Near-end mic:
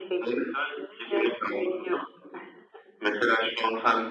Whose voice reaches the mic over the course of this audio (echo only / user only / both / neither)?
echo only